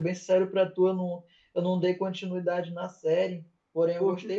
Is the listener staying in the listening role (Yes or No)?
Yes